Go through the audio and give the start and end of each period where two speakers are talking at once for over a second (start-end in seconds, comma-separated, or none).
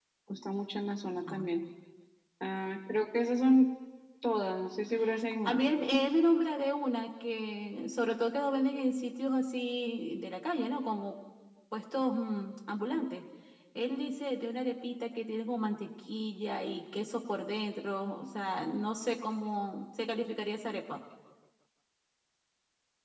none